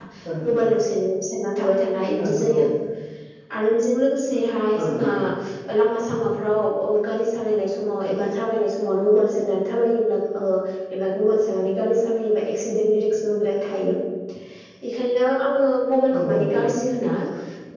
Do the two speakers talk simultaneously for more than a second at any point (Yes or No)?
No